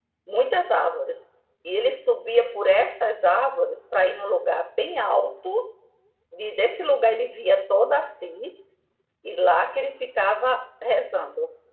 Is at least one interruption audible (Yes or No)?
No